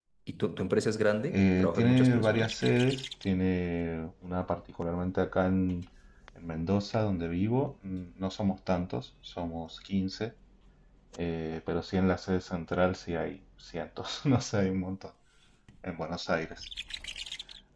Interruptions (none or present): present